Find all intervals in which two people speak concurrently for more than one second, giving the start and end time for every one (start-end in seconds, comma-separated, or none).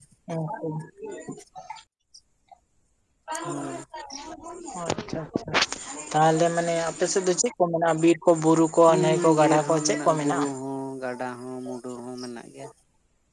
8.9-10.4